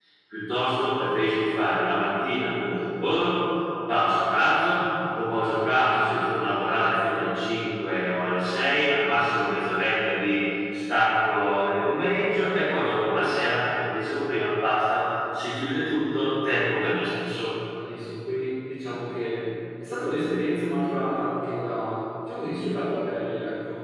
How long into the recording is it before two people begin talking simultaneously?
none

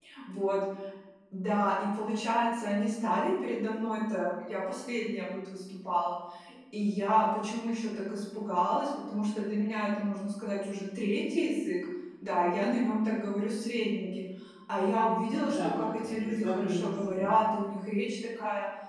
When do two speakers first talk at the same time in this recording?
15.5 s

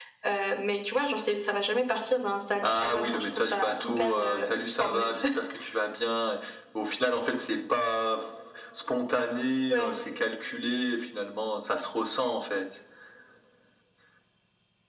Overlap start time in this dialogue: 2.6 s

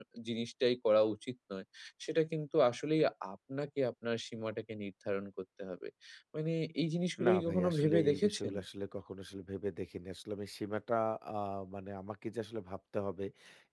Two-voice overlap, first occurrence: 7.2 s

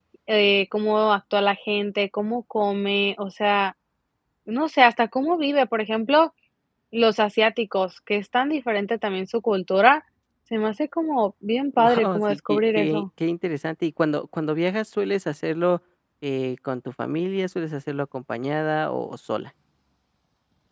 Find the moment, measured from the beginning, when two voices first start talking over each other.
11.7 s

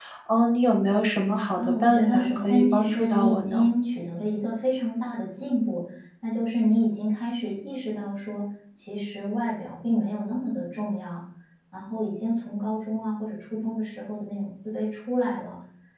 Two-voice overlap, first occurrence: 1.6 s

